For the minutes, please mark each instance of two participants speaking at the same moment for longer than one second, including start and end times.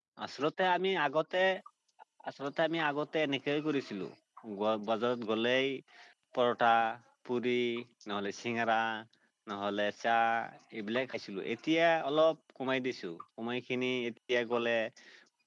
none

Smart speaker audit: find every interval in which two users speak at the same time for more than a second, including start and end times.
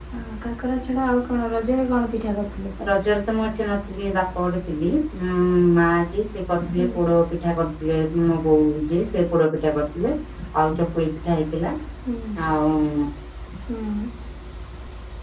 none

